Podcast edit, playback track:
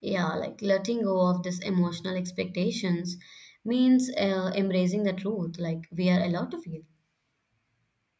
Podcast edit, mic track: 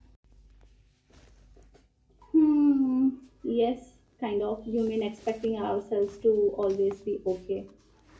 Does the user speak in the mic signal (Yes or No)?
Yes